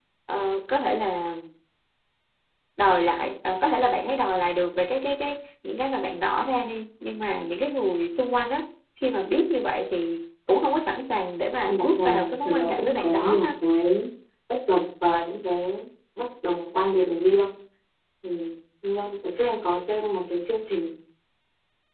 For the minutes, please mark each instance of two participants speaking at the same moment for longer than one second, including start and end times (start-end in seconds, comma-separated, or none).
11.7-13.4